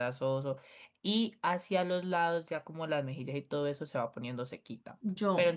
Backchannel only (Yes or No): Yes